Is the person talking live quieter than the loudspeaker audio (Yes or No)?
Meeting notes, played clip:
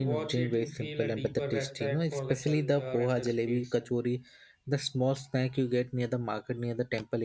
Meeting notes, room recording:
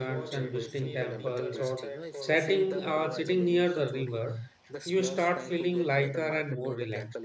No